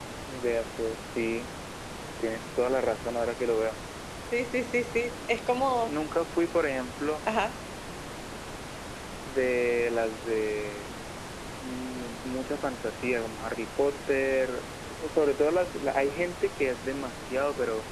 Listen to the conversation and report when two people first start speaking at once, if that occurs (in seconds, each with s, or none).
none